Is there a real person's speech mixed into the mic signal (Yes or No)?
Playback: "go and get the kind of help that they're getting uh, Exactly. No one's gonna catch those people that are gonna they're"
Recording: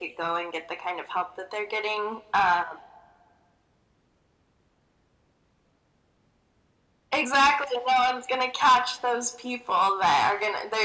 No